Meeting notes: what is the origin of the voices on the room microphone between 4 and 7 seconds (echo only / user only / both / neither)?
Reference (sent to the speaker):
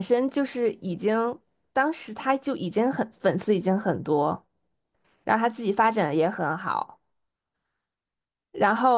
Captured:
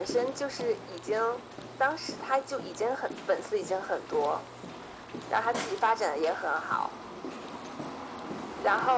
echo only